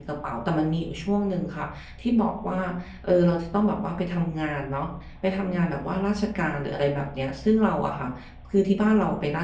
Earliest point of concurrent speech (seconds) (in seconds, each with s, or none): none